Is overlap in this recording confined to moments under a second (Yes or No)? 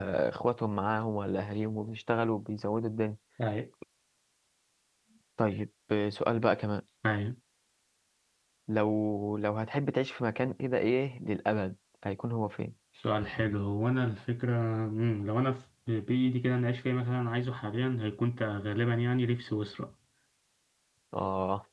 Yes